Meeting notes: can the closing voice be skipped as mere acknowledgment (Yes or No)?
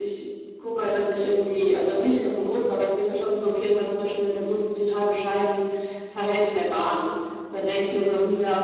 Yes